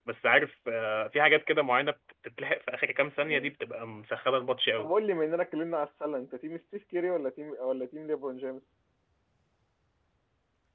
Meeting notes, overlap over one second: none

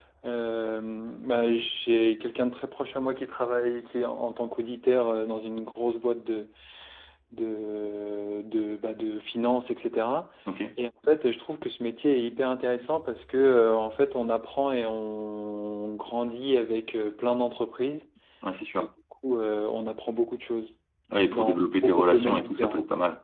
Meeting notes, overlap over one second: present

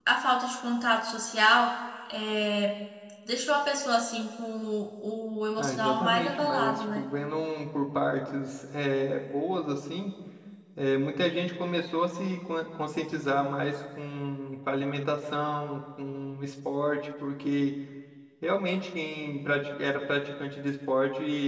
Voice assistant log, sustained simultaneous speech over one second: present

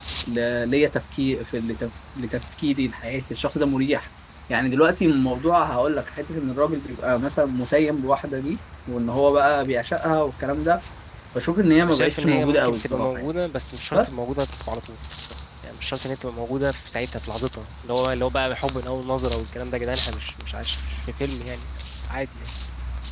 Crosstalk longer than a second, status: present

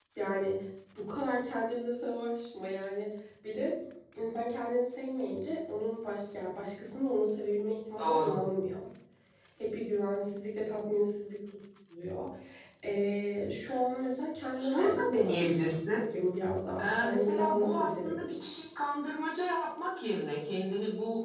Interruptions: present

